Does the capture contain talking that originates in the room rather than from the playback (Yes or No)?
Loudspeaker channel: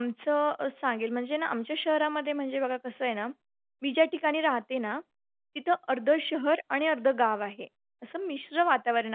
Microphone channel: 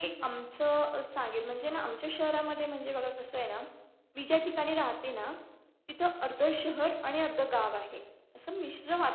Yes